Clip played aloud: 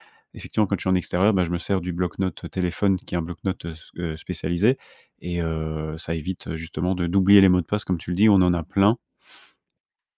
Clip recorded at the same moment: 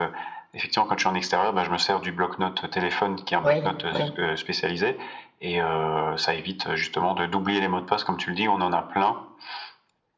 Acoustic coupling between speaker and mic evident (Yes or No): Yes